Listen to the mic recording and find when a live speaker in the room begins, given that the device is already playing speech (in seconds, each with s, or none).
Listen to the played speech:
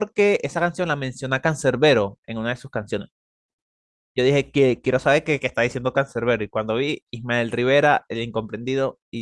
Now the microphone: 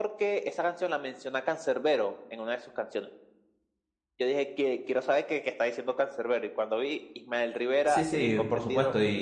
7.8 s